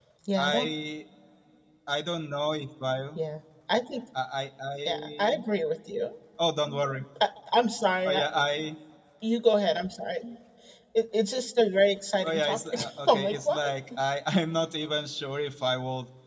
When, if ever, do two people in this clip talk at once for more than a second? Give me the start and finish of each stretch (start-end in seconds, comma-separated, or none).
12.2-13.7